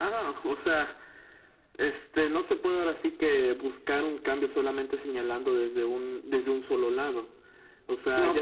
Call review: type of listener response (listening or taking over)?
listening